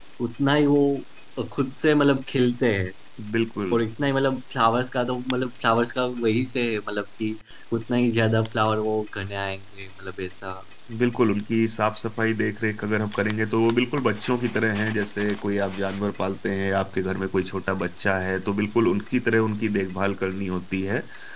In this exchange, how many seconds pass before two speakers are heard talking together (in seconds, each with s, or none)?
none